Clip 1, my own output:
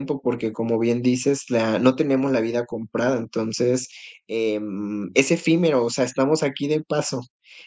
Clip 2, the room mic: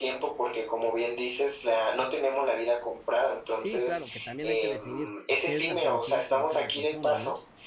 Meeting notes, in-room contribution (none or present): present